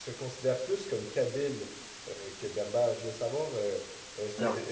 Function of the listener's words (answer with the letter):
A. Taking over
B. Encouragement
B